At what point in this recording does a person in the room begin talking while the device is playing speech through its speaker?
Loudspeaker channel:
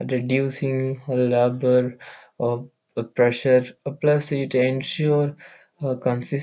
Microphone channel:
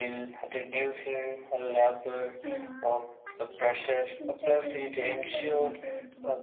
2.4 s

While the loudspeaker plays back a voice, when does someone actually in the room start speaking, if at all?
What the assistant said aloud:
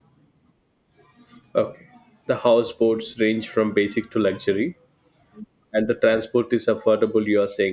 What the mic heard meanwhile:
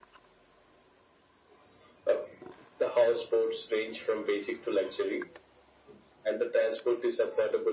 none

